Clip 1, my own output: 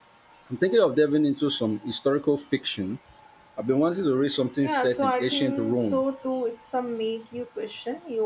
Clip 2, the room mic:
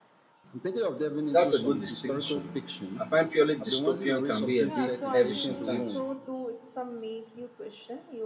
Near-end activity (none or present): present